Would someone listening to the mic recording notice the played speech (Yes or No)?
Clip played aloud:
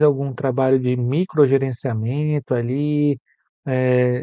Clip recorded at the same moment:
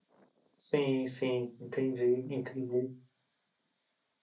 No